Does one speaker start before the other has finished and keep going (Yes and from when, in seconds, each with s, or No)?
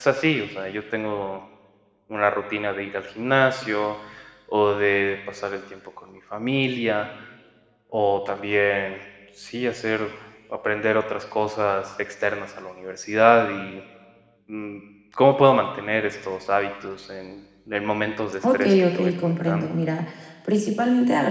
Yes, from 18.4 s